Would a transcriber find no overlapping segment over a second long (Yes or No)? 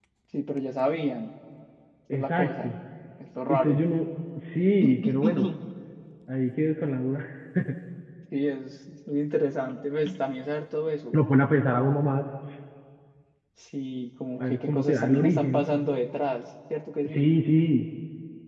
No